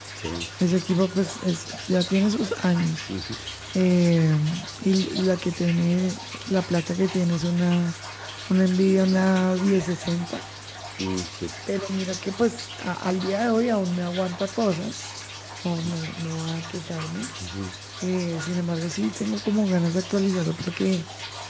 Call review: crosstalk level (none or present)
none